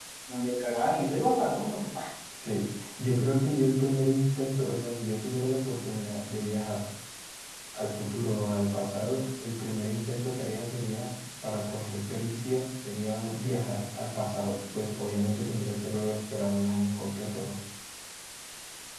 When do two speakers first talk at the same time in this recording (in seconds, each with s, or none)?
none